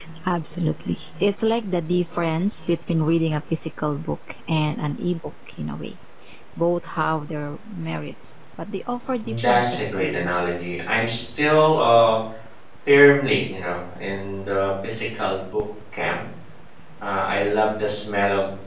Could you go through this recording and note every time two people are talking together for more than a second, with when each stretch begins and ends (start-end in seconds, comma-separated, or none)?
9.2-10.9